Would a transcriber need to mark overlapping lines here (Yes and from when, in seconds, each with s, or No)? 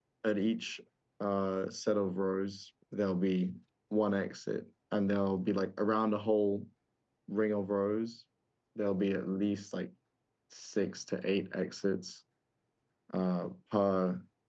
No